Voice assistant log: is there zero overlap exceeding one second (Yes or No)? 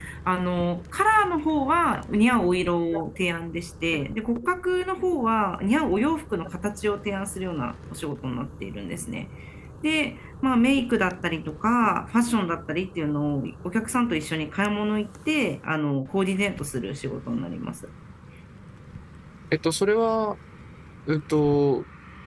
Yes